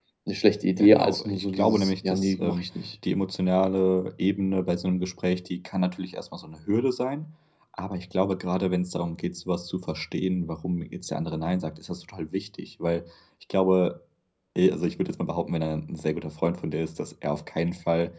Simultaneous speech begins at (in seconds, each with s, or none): 0.8 s